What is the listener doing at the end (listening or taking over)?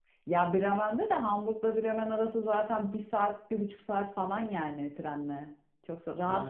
taking over